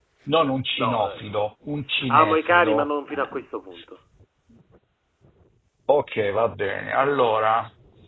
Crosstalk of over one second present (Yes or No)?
Yes